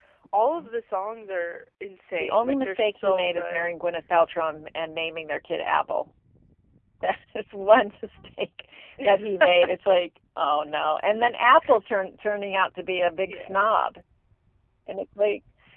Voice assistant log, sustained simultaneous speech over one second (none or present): present